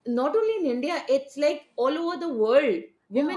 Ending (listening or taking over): taking over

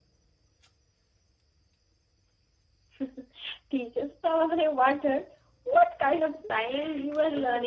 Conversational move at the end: taking over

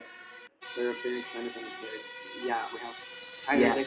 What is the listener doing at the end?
listening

